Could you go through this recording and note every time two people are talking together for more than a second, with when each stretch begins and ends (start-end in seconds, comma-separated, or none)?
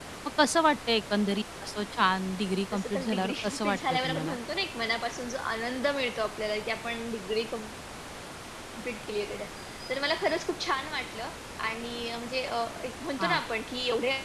2.7-4.4